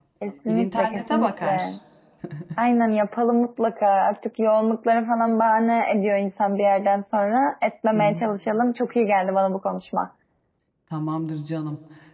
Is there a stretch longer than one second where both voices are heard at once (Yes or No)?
Yes